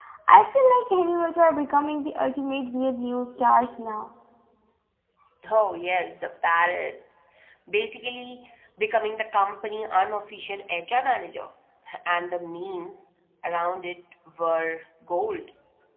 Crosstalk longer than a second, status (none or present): none